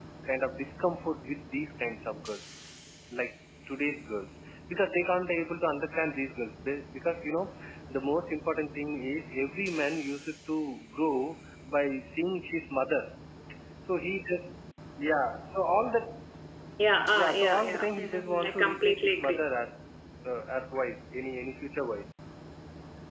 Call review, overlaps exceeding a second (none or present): present